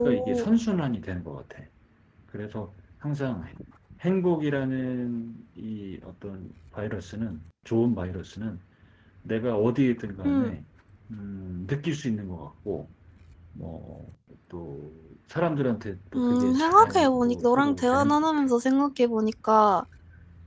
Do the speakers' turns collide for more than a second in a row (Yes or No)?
Yes